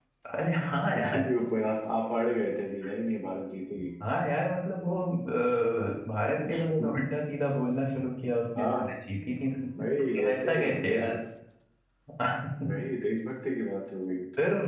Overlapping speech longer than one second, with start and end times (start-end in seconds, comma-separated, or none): 9.8-11.2